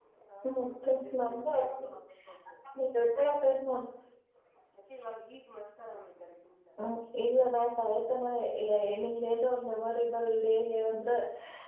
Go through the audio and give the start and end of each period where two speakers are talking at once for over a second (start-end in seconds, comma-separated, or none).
0.6-1.8